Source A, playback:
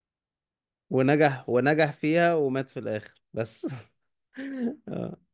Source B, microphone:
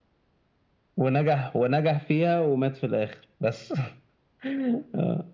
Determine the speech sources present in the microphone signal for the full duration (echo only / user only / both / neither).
echo only